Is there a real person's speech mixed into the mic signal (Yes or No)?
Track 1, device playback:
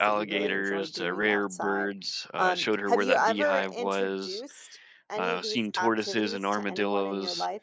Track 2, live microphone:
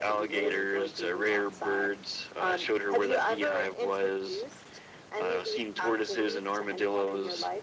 No